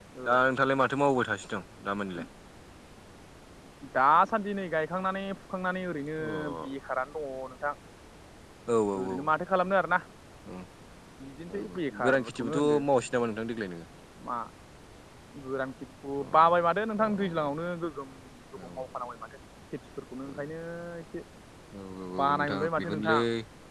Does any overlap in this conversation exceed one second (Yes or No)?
Yes